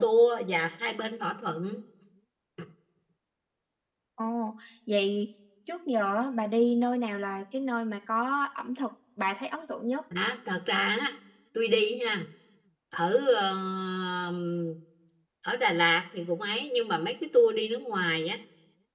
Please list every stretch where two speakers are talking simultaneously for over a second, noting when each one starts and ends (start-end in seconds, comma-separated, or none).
none